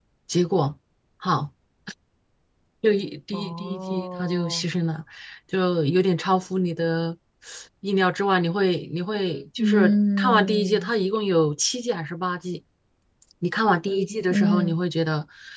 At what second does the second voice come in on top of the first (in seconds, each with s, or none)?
3.3 s